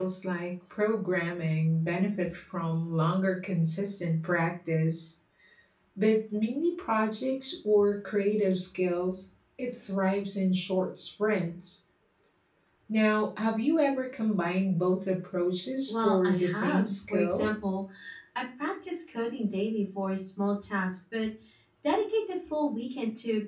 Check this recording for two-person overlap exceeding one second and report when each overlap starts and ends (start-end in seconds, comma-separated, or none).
15.9-17.5